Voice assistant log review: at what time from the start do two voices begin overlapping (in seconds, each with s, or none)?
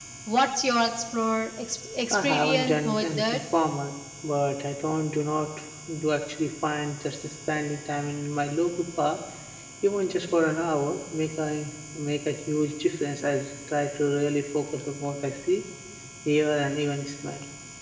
2.1 s